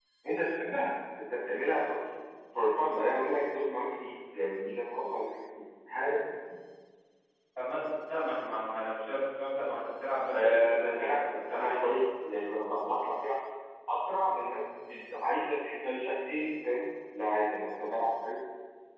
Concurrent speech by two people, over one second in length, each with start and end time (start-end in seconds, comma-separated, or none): 10.3-12.0